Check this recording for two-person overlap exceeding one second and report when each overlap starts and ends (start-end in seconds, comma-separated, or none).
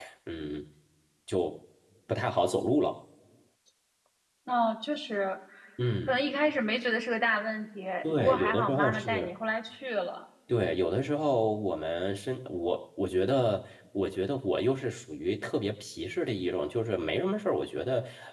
8.0-9.3